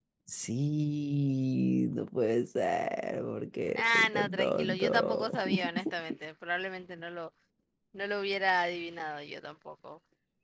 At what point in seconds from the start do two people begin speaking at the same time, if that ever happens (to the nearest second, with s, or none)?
4 s